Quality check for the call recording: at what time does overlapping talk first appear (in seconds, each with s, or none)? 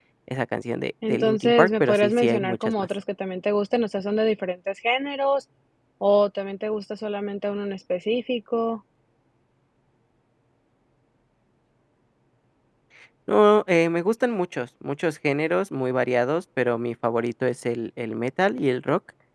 1.1 s